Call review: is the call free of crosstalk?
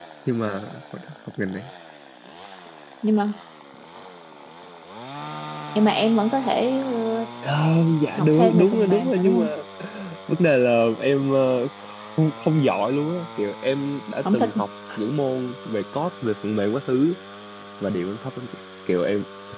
No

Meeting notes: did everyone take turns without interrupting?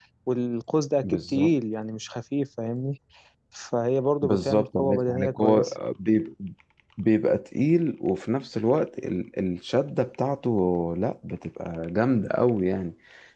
No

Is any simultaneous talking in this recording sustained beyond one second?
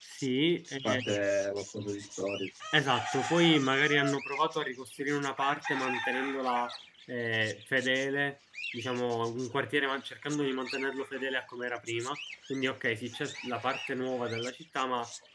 No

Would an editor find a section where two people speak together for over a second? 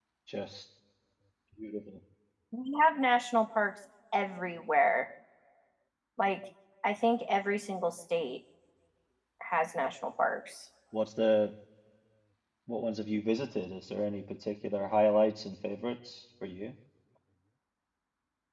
No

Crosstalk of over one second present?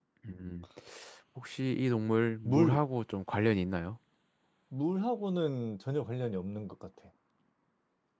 No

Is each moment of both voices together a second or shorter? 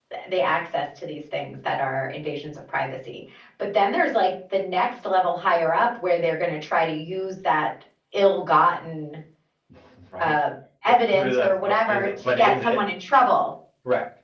No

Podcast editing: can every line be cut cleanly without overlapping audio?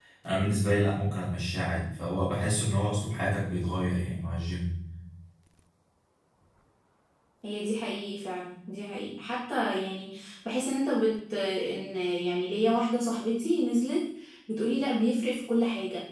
Yes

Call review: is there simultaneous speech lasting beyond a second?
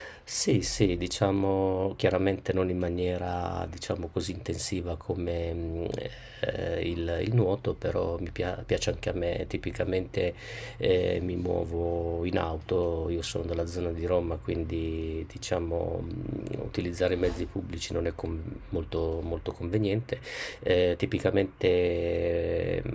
No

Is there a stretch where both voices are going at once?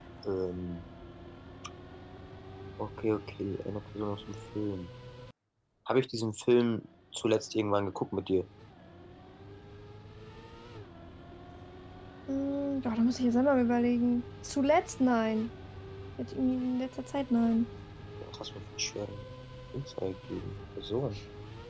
No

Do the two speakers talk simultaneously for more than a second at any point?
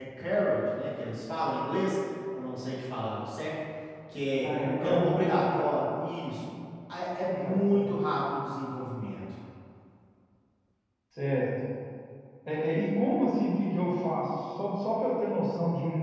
Yes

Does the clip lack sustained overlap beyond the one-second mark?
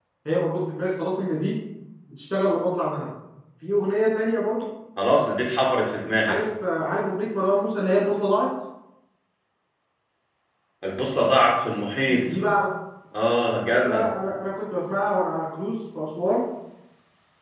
Yes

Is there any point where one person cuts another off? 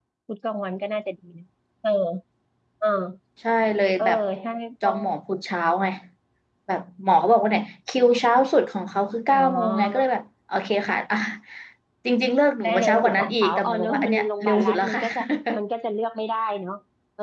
Yes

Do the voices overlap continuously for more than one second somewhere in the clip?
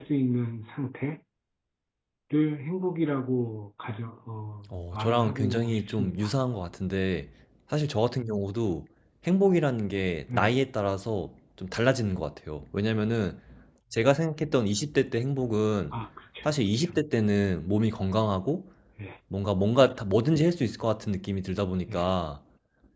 Yes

